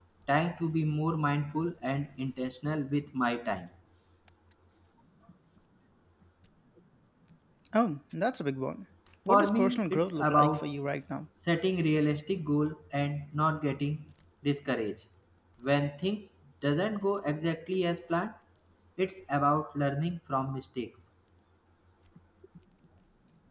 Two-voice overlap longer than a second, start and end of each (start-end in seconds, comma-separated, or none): 9.3-10.8